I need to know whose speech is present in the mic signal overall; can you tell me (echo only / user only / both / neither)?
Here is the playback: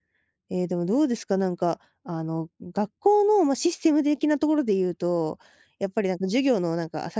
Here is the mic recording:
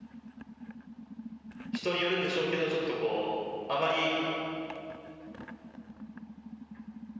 user only